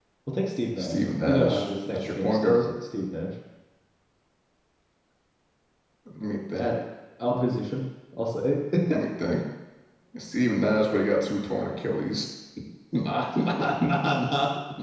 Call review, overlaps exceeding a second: present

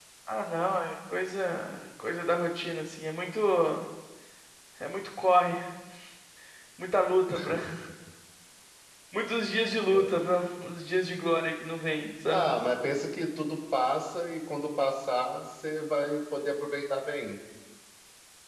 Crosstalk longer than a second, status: none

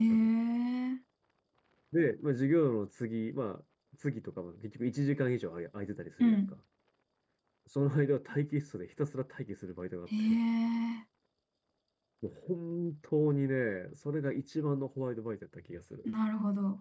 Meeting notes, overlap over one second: none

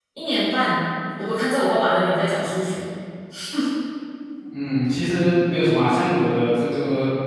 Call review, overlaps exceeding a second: none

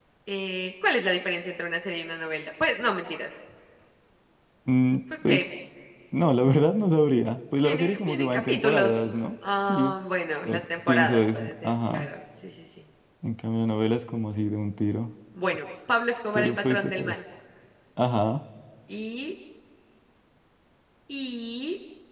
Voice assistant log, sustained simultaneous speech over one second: present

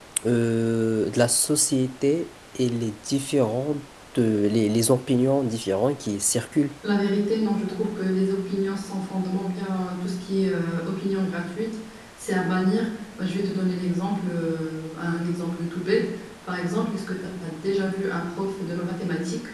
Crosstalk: none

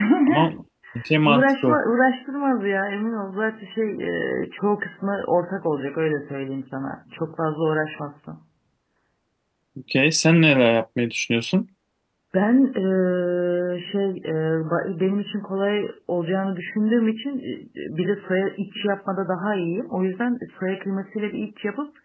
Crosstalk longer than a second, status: none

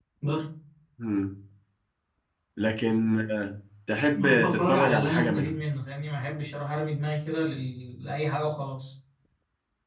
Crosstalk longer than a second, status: present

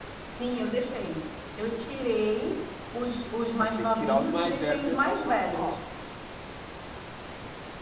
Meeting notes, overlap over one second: present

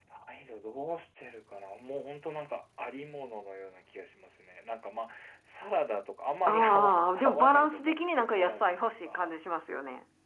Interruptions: present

